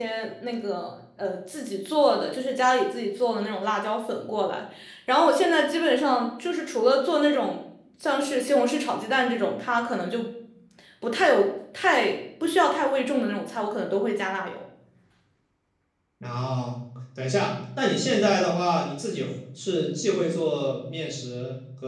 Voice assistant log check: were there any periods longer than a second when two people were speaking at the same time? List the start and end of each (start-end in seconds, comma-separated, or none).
none